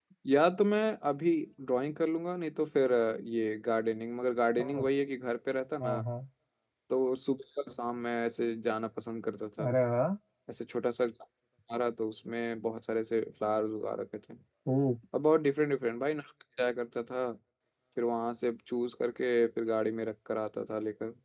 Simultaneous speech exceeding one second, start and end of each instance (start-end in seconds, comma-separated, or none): none